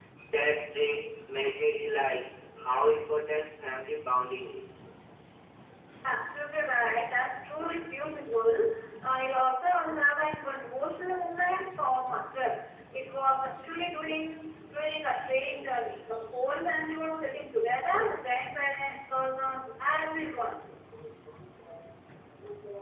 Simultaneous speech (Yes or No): No